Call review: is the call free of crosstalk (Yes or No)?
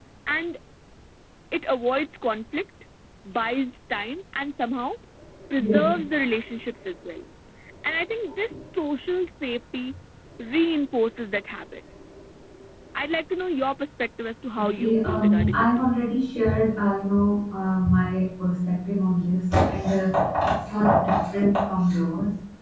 No